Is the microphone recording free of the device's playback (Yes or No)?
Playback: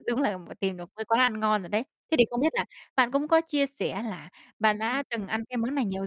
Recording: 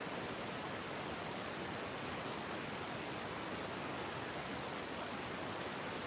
Yes